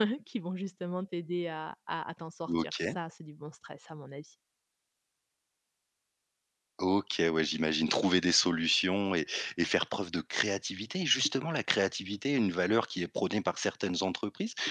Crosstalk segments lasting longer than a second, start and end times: none

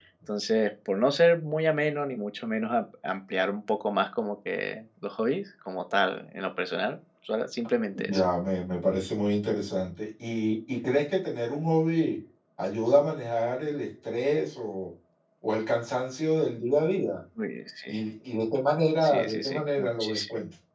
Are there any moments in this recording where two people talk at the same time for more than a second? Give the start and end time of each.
19.0-20.2

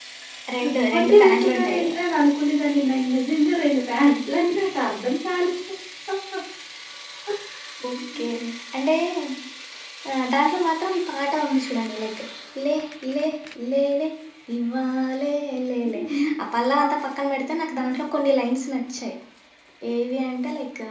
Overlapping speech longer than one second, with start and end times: 0.6-1.9

